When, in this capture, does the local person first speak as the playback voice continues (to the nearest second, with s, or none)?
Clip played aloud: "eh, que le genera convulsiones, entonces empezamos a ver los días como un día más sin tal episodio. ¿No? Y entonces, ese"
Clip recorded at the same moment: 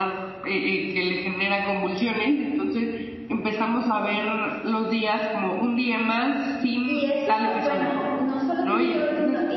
7 s